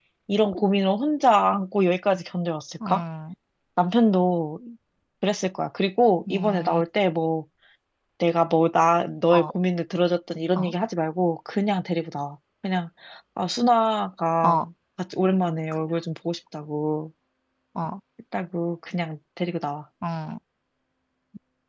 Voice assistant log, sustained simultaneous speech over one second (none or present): none